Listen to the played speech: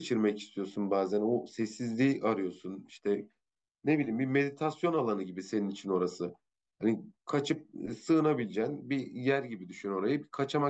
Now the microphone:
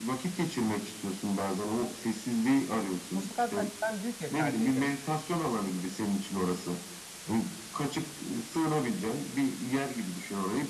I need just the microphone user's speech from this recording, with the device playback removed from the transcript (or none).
Bu sefer de hani ben büyük ev tercih ederim.